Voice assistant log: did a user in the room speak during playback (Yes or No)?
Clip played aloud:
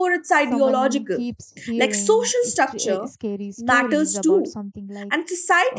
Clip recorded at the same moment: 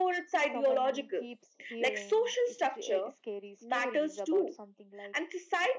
No